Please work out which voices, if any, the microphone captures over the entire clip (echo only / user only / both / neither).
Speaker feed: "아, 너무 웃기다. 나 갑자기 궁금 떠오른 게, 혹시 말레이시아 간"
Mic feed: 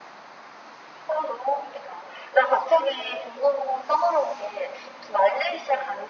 echo only